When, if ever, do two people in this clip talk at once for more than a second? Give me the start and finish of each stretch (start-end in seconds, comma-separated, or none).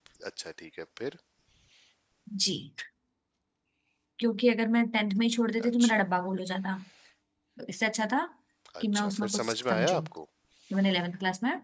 8.8-10.1